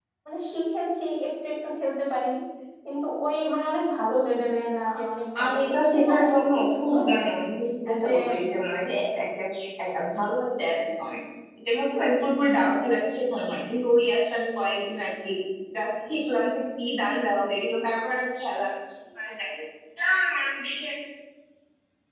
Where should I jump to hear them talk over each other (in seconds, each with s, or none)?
5.4 s